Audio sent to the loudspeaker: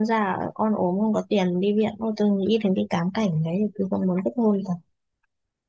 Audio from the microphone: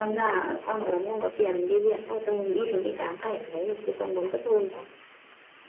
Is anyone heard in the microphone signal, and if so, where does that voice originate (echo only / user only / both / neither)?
echo only